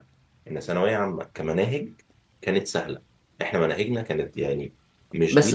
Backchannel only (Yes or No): No